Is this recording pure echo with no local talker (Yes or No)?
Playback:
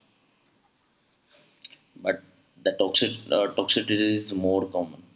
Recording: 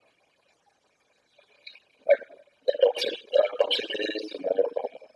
Yes